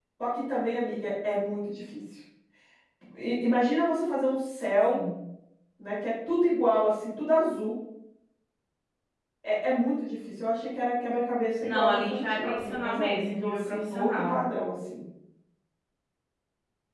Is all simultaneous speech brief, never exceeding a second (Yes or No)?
No